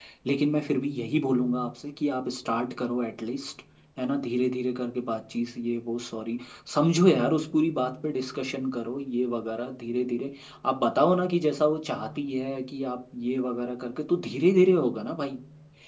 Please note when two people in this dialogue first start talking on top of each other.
none

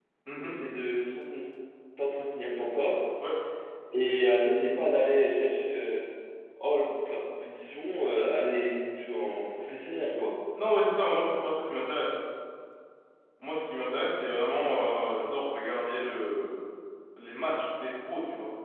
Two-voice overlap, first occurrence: none

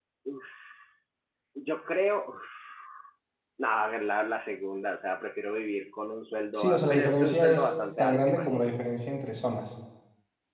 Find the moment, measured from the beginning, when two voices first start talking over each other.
6.5 s

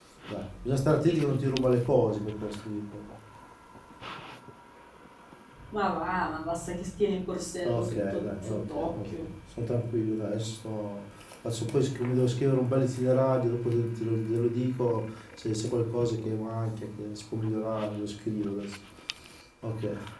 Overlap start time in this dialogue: 7.6 s

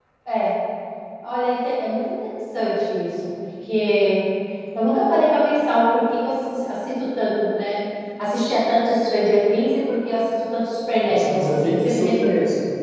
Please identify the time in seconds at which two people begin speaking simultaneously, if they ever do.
11.1 s

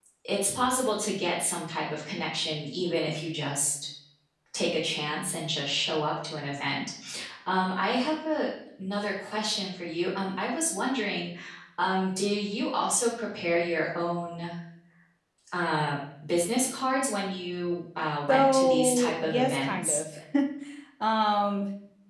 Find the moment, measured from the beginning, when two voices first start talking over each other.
18.3 s

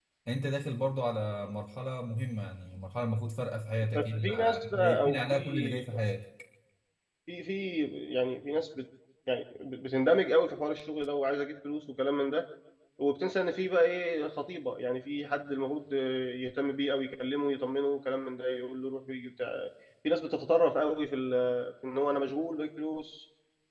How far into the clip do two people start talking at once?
3.9 s

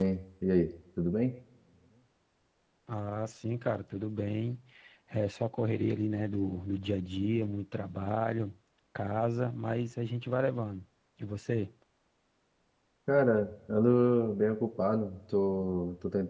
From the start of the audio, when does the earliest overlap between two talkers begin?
none

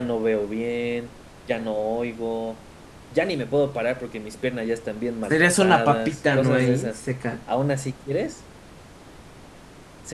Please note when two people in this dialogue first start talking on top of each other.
5.3 s

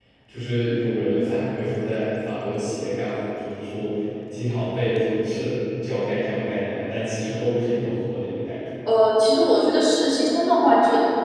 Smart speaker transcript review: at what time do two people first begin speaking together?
none

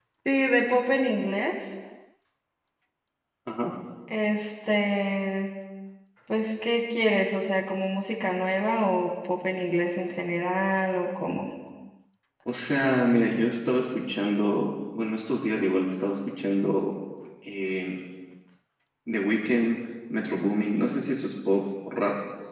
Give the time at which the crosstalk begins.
none

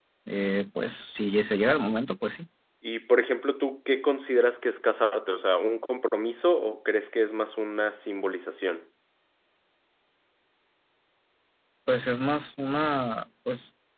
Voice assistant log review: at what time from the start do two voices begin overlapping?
none

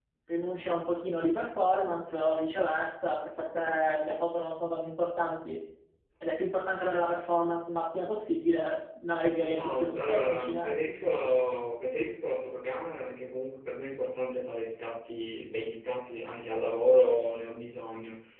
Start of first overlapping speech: 9.4 s

